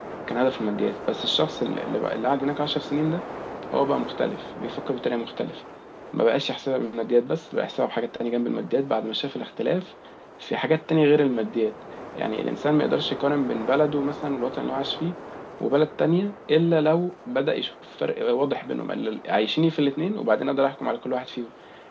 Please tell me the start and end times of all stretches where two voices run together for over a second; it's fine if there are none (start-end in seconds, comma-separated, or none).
none